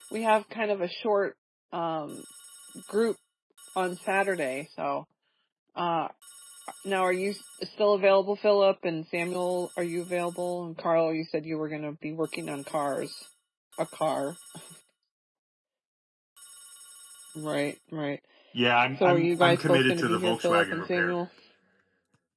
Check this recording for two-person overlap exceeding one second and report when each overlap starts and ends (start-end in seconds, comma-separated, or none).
18.9-21.1